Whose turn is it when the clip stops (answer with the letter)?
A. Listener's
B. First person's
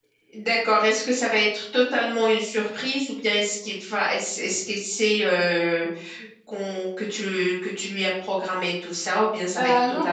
A